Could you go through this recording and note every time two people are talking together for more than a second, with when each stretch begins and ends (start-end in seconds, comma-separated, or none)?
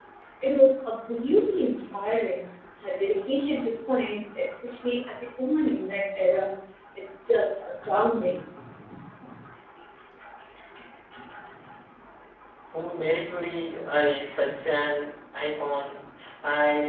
none